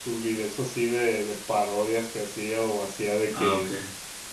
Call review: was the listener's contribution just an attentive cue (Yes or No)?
Yes